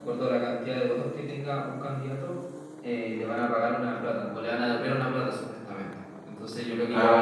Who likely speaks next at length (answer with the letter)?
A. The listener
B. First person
B